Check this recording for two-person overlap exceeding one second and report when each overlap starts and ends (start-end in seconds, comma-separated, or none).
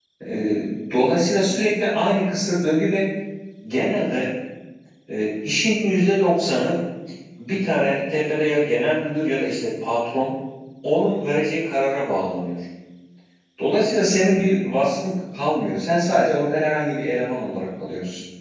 none